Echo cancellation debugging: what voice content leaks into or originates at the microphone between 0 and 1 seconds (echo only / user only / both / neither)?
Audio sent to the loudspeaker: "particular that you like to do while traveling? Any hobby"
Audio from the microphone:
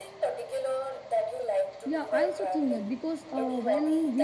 echo only